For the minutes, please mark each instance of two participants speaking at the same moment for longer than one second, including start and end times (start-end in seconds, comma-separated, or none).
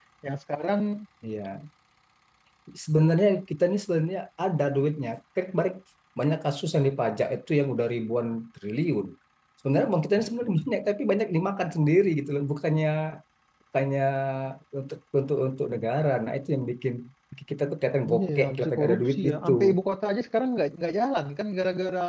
18.1-19.8